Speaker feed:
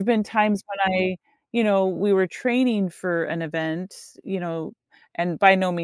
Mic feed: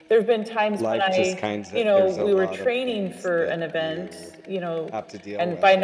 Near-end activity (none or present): present